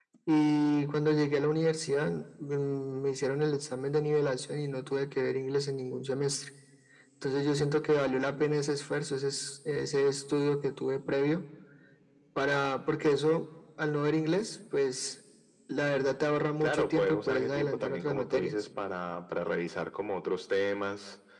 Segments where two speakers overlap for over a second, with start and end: 16.6-18.6

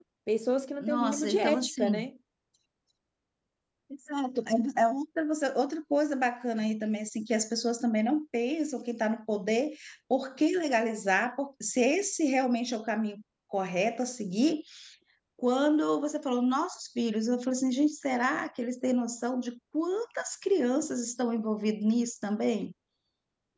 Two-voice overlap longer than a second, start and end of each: 0.8-2.1

